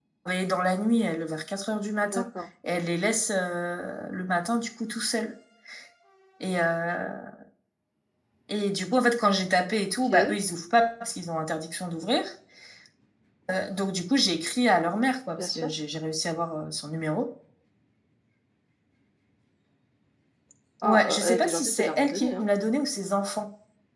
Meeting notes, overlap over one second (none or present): present